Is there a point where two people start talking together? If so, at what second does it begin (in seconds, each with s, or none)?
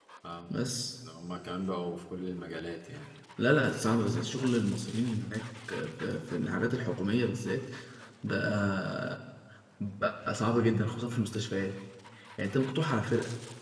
none